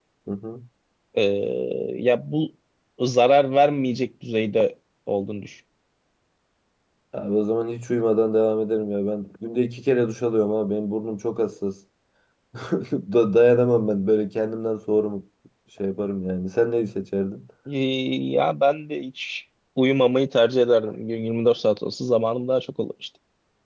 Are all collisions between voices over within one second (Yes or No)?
Yes